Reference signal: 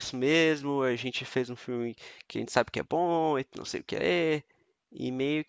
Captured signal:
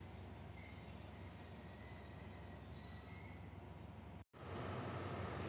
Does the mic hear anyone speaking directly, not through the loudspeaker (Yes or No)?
No